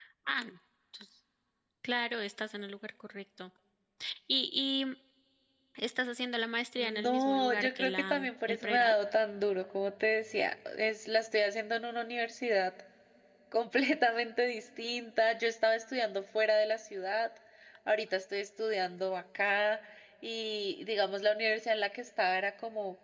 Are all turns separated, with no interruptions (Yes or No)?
No